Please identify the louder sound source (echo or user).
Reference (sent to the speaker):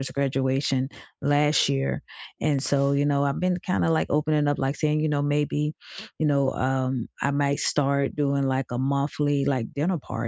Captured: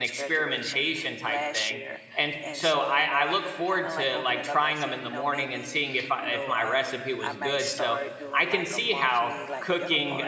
user